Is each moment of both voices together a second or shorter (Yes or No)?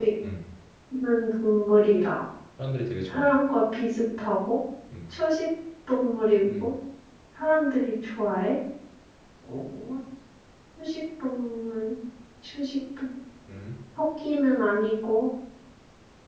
Yes